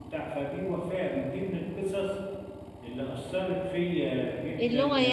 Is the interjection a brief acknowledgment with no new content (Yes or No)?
No